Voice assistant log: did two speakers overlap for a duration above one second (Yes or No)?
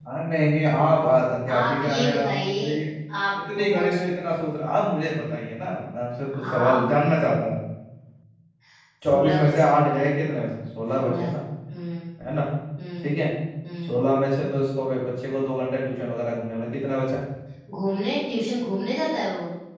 Yes